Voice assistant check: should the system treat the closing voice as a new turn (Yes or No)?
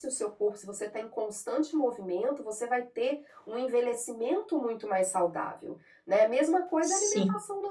No